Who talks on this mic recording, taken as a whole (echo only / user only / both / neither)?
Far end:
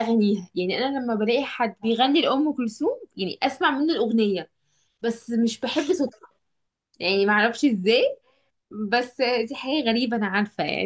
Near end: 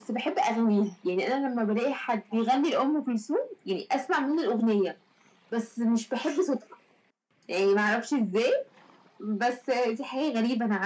echo only